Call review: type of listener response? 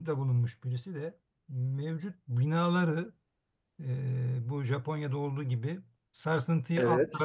listening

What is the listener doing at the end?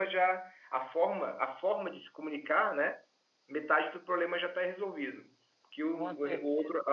listening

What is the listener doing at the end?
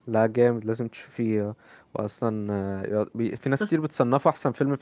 listening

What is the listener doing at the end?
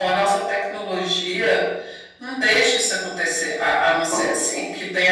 listening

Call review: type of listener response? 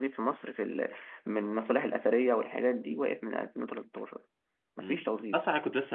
taking over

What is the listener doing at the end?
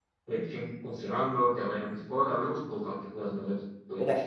taking over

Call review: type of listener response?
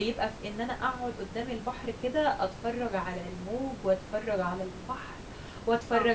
listening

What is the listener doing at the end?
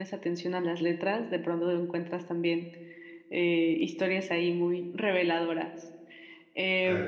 listening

